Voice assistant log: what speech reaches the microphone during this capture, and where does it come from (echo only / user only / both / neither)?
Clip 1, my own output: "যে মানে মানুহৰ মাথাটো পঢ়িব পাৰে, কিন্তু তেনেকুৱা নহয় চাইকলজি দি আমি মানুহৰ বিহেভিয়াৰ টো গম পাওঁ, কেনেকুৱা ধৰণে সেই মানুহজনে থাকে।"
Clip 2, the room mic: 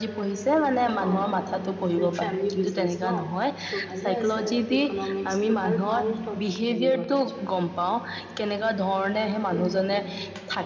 both